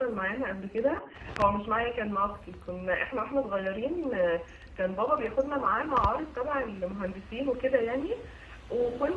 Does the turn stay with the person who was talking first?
Yes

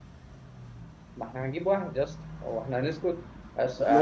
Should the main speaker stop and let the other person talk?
No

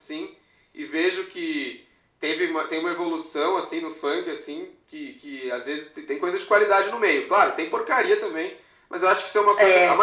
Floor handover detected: No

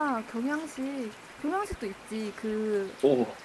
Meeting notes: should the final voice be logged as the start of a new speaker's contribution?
No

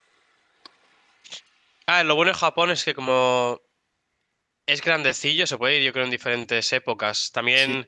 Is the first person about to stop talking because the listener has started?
No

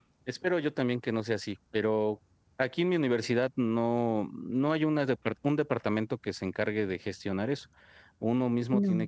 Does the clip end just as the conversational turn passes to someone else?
No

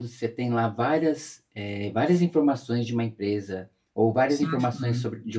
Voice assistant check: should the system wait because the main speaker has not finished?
Yes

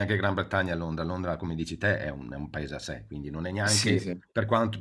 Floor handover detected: No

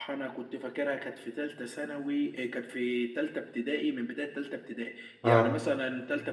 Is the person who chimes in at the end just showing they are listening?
Yes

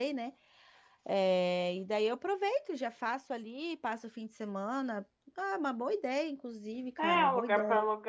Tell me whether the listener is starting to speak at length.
Yes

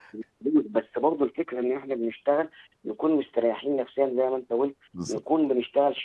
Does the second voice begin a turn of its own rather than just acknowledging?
No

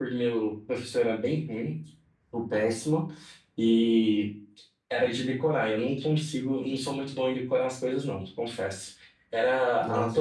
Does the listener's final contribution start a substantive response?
Yes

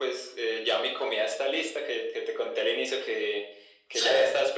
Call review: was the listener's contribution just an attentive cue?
Yes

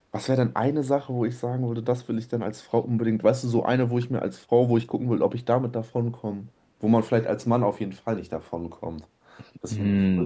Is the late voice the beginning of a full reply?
Yes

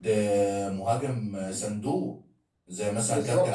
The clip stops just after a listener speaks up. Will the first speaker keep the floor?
Yes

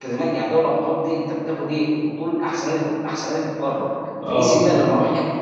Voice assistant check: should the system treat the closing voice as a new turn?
No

